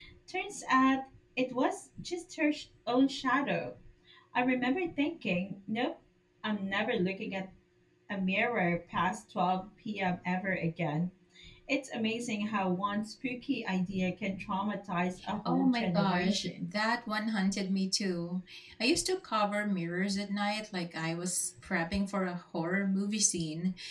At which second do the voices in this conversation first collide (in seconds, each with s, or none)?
15.2 s